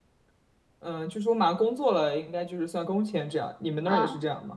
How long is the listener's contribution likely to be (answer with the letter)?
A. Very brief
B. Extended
B